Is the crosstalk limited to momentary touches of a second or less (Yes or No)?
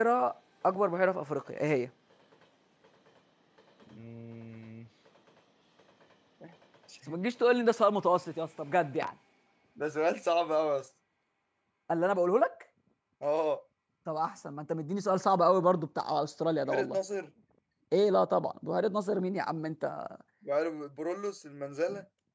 Yes